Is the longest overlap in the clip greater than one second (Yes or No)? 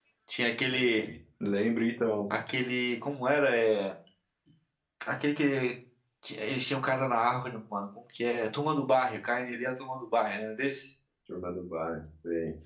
No